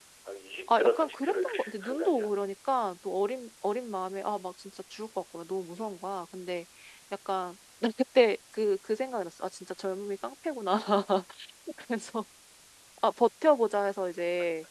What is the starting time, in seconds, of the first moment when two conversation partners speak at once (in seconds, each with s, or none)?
0.7 s